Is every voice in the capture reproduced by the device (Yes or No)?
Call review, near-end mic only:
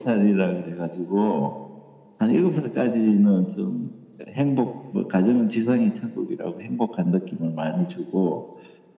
Yes